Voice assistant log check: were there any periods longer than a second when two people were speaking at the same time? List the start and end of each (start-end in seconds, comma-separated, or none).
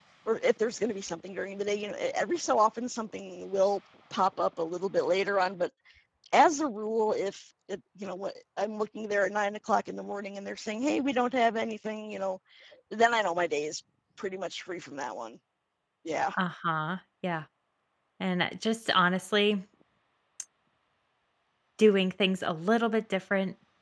none